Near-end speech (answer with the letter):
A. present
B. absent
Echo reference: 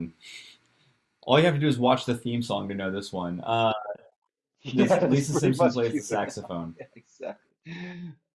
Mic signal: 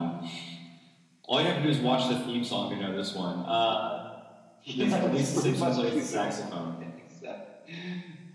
B